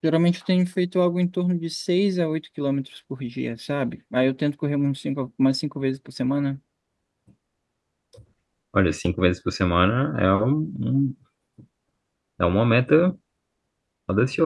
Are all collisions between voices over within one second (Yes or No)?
Yes